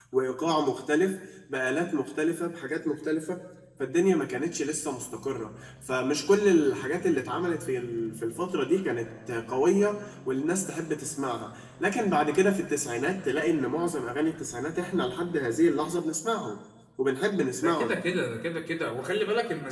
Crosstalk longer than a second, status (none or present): none